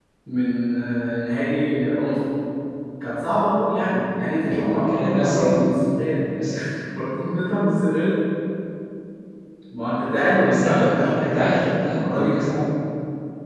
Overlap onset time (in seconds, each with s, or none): 4.2 s